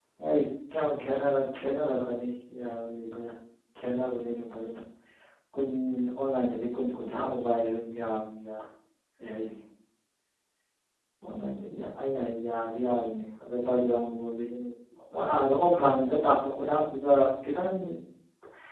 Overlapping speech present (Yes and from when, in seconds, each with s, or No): No